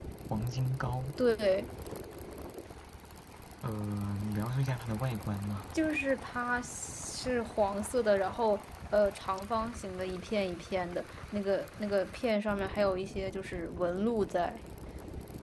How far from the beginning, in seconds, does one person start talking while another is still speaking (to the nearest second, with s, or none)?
none